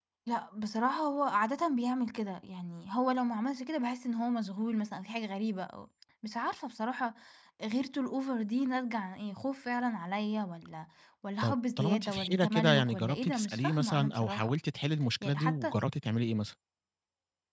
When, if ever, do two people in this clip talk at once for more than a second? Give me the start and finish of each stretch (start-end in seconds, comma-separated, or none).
11.4-14.5